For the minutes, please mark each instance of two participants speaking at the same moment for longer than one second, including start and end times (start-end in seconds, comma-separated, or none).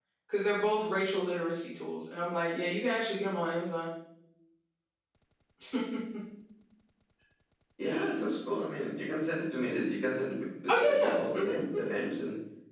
10.7-11.9